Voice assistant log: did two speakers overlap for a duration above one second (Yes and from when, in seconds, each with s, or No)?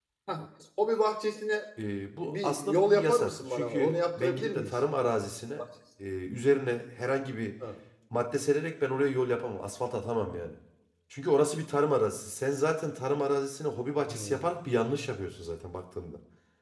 Yes, from 2.2 s